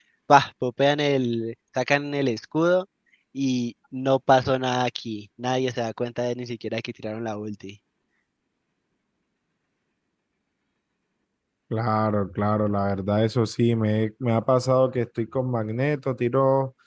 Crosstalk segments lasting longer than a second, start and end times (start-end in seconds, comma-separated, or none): none